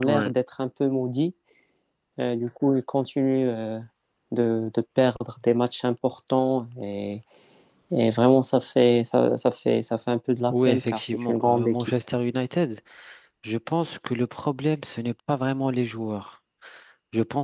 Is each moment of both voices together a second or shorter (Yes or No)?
No